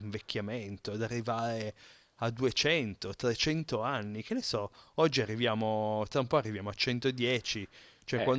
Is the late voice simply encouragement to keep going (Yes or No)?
Yes